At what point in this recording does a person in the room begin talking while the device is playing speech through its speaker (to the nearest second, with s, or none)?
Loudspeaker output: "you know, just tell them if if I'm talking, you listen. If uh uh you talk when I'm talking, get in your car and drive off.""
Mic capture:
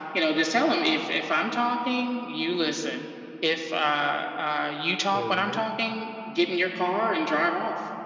5 s